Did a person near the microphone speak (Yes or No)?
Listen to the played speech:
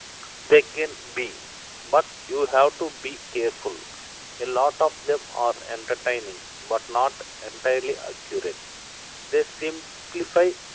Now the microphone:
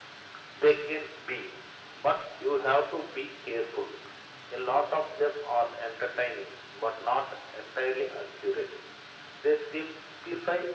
No